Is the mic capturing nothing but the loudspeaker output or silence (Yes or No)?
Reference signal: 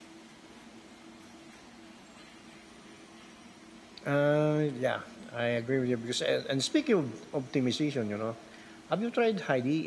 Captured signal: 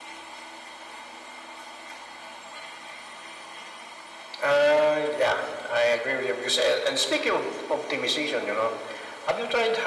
Yes